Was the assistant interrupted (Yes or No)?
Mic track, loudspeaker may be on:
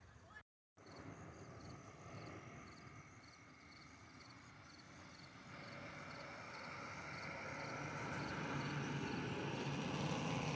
No